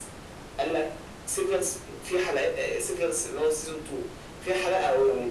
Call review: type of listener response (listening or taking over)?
listening